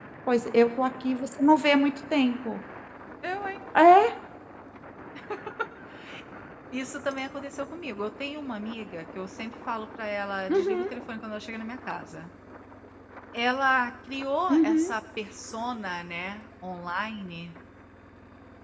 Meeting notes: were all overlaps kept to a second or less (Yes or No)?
Yes